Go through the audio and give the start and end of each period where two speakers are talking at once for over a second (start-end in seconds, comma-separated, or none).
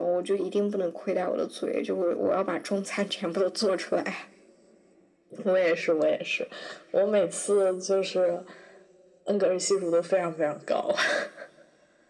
none